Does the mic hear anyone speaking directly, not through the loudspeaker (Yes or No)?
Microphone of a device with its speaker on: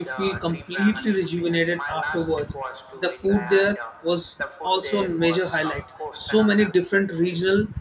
Yes